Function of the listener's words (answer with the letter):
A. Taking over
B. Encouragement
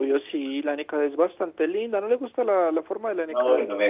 A